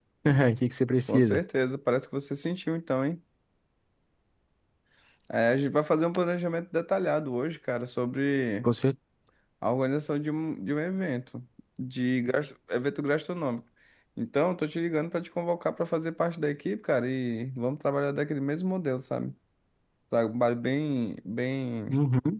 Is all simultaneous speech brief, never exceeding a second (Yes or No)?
Yes